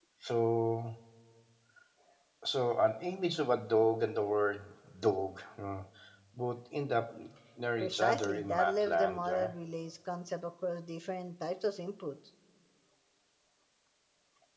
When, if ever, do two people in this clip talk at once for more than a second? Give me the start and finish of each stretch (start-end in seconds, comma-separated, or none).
7.8-9.5